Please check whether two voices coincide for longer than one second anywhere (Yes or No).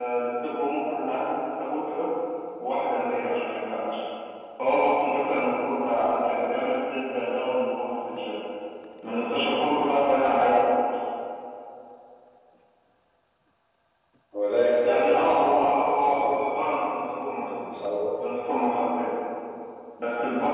Yes